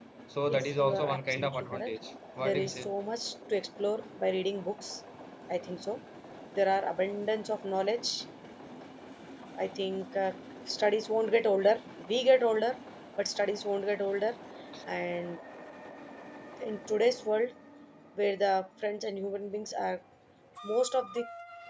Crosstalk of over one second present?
Yes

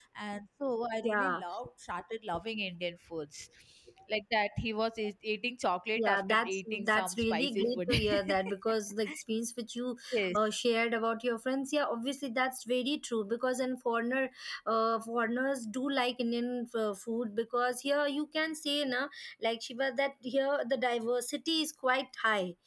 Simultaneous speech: Yes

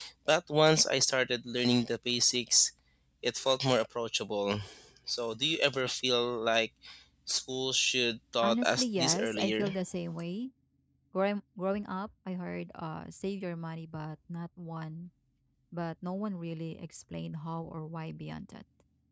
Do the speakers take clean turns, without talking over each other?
No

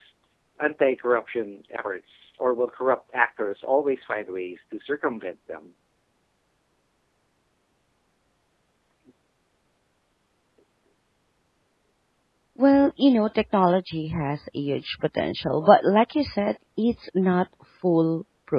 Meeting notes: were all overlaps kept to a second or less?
Yes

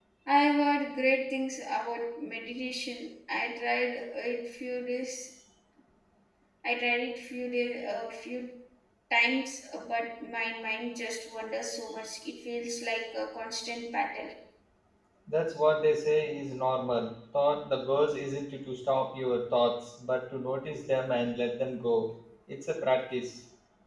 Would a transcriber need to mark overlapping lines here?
No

